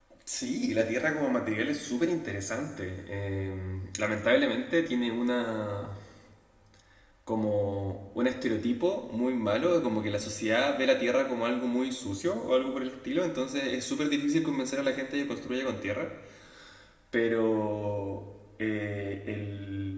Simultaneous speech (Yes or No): No